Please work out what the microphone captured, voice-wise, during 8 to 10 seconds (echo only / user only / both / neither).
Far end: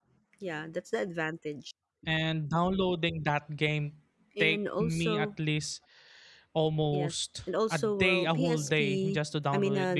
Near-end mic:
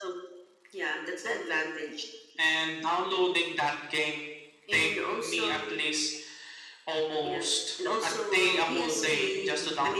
both